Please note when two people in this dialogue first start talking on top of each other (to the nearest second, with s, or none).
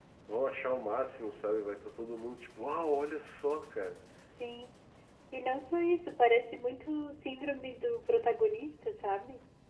none